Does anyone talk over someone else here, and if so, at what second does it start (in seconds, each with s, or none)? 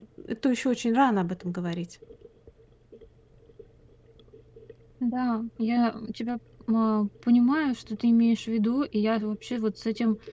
none